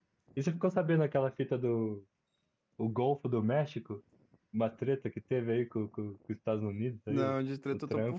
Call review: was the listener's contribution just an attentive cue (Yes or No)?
No